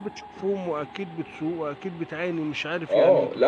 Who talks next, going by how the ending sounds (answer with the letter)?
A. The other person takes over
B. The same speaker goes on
A